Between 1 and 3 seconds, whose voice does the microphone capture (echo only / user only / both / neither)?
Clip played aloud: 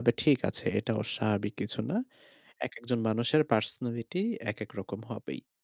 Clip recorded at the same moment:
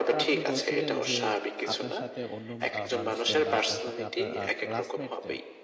both